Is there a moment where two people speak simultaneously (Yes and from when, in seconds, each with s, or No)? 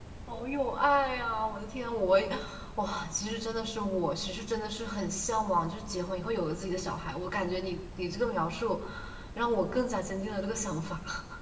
No